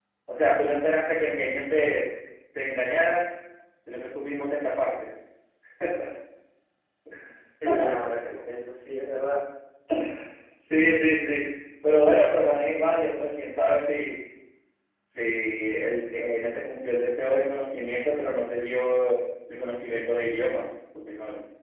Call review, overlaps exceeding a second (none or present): none